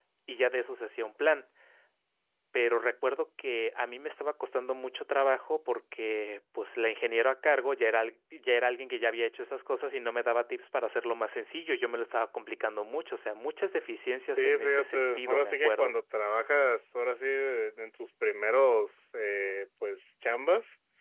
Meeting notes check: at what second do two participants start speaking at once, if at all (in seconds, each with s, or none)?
14.4 s